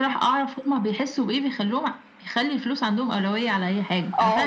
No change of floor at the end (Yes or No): No